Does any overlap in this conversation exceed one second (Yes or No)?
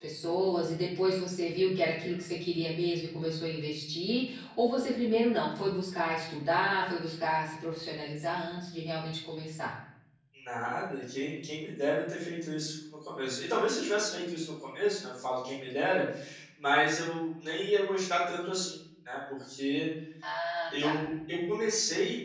No